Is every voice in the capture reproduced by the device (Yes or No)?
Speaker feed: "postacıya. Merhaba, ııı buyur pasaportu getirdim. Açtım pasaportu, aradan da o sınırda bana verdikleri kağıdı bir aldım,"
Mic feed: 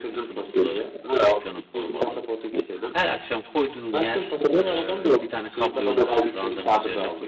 No